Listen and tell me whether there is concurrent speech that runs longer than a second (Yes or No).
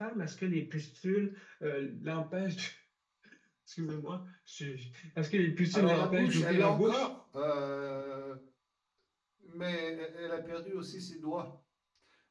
Yes